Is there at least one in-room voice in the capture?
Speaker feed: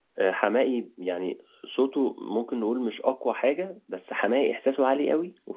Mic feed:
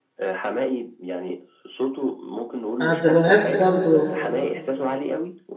Yes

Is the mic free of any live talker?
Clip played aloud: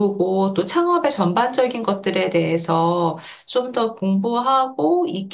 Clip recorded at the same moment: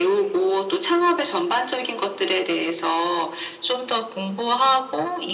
Yes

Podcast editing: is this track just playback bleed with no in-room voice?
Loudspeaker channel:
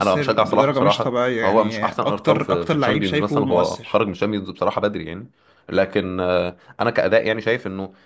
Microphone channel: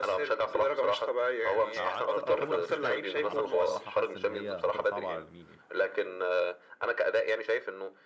No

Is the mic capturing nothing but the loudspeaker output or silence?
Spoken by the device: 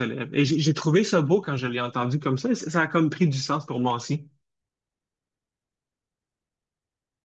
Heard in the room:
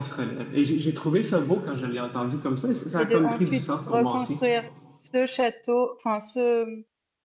No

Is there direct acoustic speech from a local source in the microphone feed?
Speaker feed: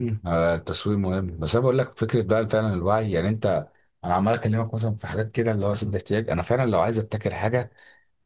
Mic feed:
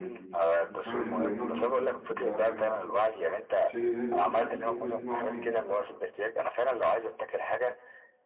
Yes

